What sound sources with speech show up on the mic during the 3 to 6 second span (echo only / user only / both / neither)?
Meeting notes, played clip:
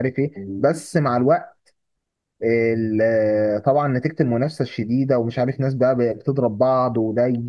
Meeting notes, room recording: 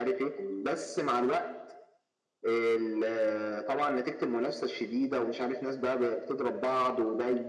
echo only